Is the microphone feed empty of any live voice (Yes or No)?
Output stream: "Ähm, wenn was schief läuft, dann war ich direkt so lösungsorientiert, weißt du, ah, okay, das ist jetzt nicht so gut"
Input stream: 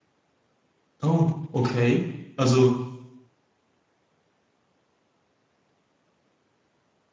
No